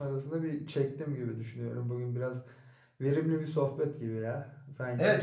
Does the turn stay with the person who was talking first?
No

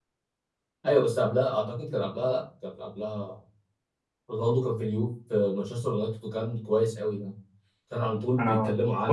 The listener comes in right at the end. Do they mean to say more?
No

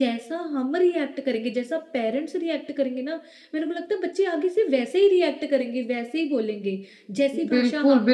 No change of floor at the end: No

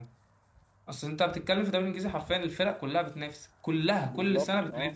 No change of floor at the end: No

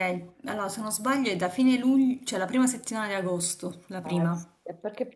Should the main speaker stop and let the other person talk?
Yes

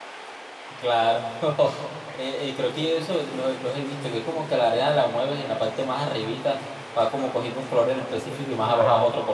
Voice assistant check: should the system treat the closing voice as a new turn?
Yes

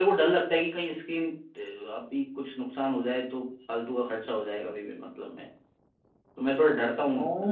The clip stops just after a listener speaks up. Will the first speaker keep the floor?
No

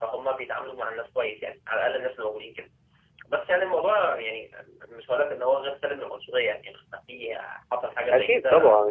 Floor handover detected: Yes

